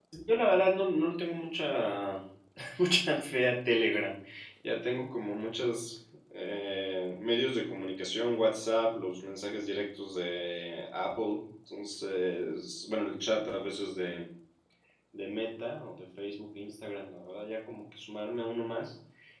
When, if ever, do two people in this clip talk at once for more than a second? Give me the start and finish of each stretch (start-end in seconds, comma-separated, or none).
none